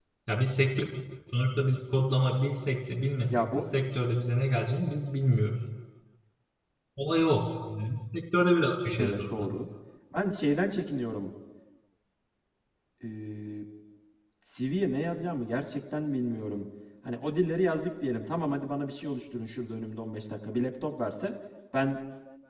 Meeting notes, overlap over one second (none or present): none